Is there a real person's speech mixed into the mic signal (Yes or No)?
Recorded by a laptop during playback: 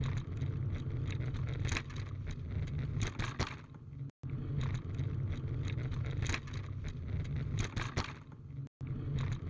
No